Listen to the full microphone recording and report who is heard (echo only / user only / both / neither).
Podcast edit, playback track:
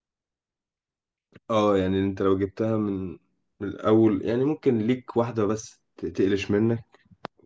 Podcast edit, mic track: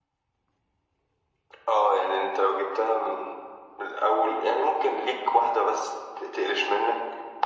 echo only